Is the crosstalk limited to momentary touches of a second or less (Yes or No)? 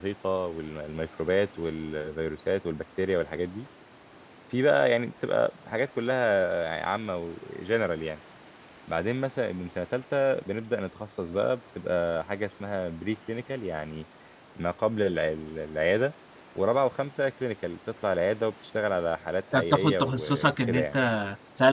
No